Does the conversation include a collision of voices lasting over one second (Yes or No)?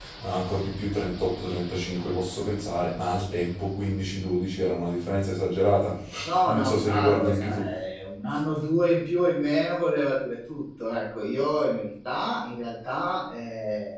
Yes